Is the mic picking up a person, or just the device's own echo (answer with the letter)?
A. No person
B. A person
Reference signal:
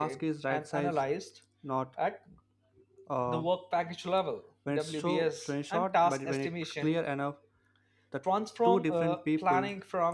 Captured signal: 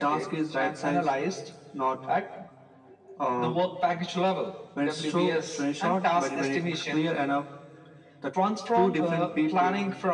A